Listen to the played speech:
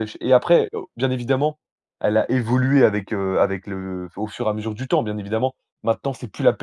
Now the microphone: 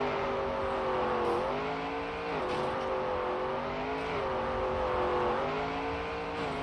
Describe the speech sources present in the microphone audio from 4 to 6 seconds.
neither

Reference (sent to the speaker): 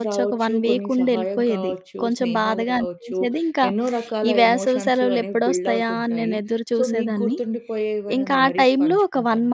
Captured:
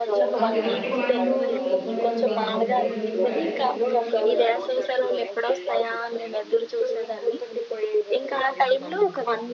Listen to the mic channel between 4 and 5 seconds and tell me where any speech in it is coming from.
both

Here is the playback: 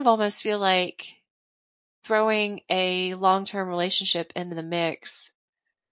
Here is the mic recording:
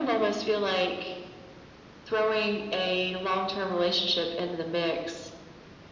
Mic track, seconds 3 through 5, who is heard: echo only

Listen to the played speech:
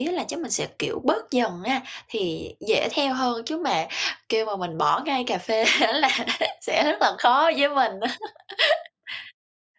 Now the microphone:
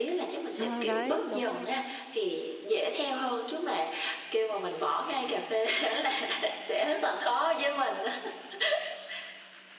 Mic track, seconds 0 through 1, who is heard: both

